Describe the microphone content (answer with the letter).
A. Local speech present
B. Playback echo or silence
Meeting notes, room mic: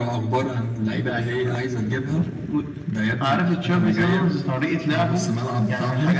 B